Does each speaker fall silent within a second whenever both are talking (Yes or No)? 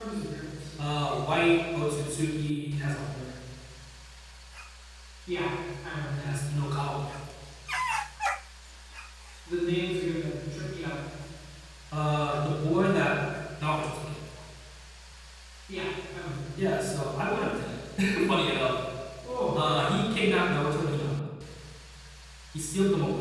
Yes